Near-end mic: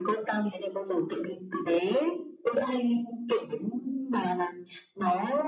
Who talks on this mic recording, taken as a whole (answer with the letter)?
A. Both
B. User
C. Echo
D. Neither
C